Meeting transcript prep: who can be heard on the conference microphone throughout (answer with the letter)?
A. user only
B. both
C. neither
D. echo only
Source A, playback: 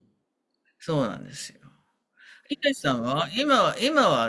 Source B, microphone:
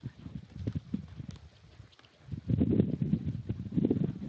C